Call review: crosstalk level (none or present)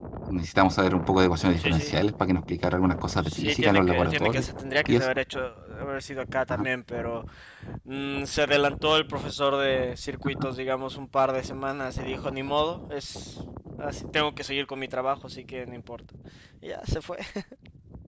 present